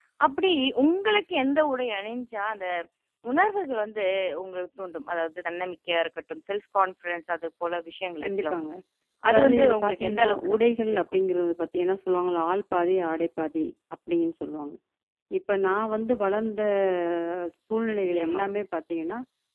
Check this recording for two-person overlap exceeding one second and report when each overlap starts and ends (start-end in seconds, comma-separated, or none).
9.3-10.5